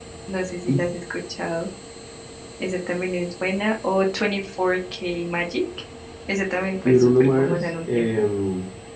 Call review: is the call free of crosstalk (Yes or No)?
No